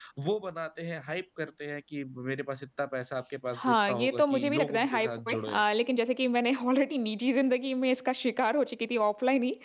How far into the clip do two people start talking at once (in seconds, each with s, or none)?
3.5 s